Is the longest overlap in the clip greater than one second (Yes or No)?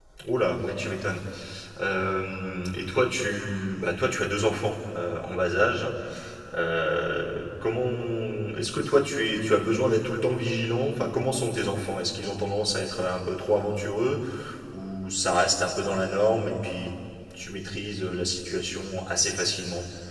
No